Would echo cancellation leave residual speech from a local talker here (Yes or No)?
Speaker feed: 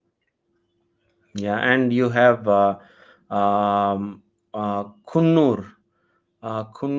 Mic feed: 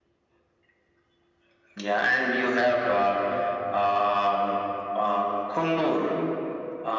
No